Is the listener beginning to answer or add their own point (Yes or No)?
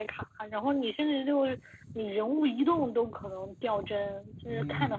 Yes